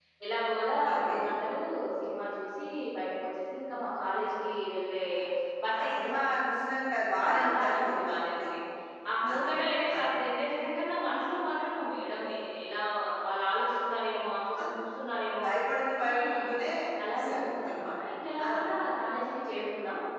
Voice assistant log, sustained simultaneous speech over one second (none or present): present